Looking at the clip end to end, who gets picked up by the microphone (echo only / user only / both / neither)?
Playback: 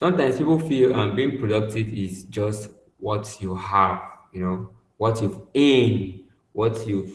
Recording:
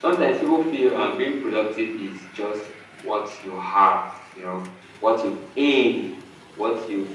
echo only